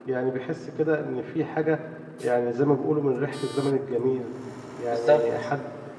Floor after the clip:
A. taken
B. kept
B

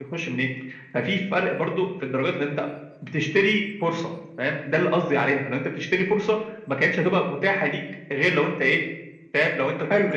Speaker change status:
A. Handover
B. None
A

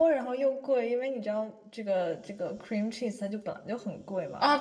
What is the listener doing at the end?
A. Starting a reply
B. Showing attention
A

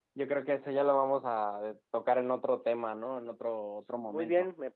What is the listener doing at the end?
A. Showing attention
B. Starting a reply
B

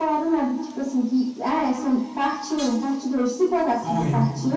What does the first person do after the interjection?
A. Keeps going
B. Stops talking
A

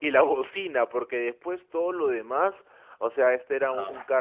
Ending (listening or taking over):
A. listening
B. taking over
A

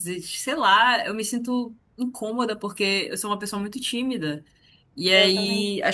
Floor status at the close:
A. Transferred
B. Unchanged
B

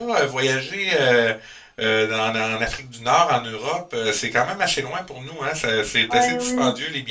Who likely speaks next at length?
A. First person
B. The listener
B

